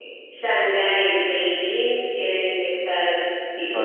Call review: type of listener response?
taking over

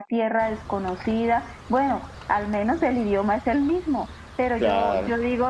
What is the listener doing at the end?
listening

